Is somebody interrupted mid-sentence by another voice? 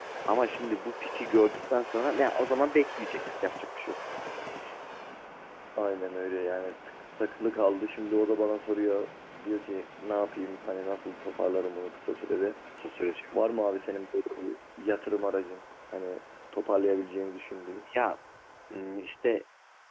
No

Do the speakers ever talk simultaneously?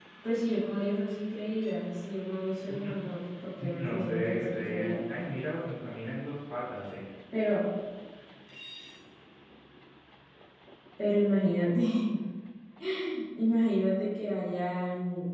Yes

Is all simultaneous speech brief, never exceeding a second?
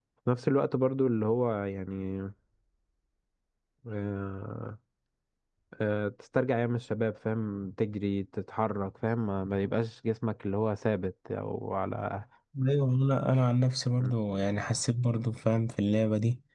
Yes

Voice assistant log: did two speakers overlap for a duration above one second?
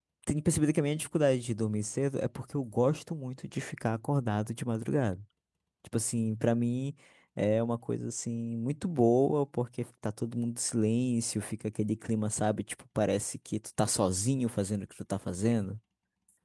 No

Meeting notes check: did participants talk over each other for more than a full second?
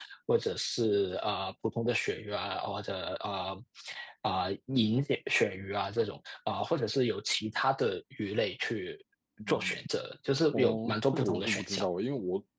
Yes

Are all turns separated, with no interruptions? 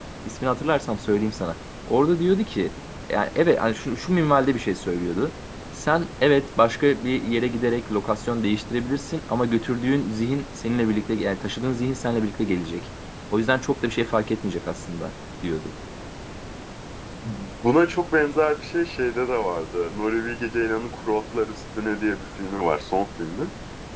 Yes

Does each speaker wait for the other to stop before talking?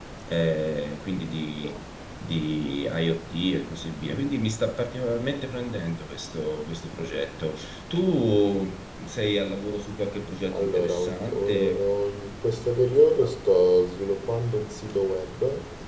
No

